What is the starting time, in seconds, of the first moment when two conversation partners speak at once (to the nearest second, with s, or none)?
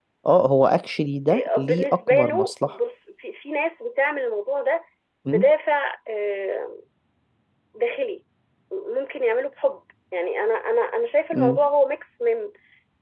1 s